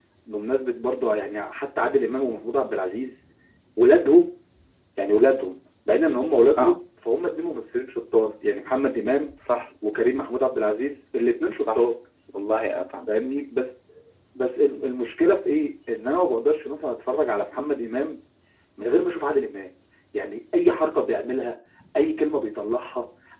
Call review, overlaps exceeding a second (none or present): none